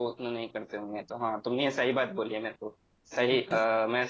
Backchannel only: Yes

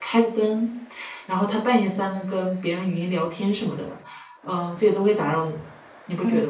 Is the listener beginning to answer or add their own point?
Yes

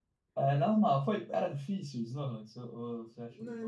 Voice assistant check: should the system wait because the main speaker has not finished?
No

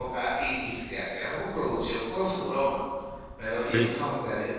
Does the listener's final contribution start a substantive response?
No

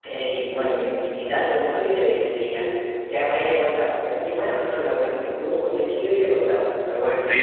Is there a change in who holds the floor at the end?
Yes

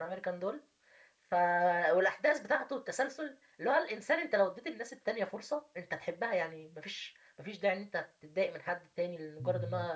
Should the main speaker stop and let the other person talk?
No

